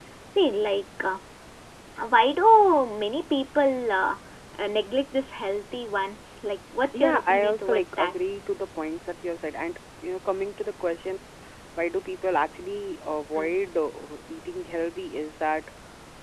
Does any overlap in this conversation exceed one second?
Yes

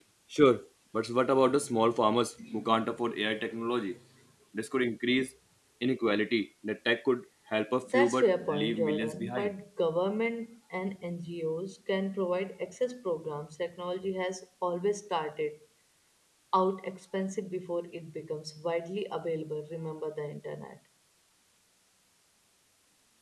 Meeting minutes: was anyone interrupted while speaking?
Yes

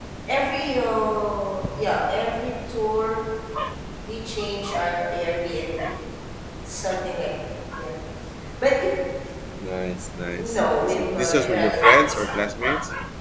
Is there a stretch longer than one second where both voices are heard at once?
Yes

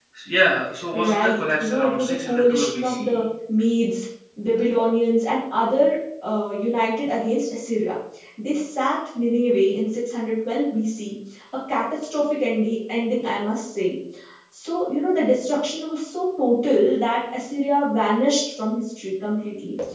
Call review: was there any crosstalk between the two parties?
Yes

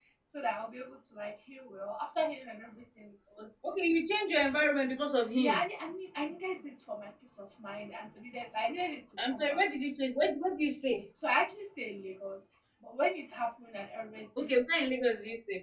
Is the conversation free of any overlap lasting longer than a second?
Yes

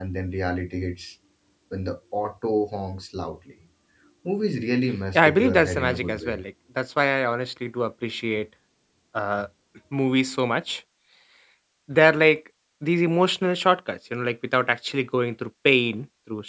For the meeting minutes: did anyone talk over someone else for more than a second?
Yes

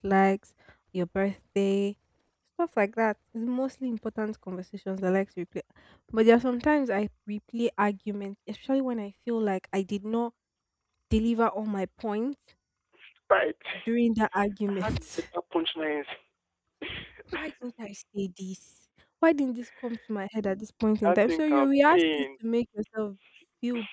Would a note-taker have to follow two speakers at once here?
Yes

